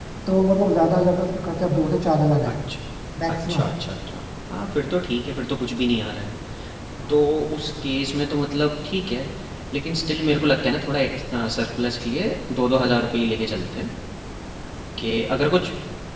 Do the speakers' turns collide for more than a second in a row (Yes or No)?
No